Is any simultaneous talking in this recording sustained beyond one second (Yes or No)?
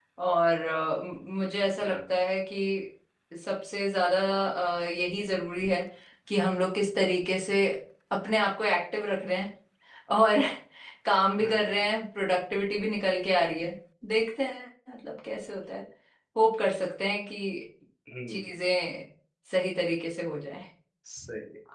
No